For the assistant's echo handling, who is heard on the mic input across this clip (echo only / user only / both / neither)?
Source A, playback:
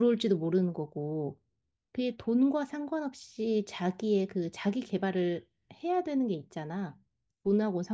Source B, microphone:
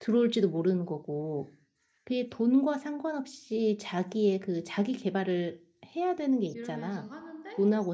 both